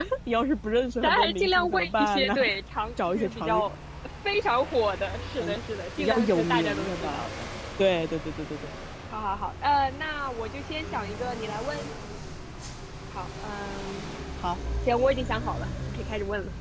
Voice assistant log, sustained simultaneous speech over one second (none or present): present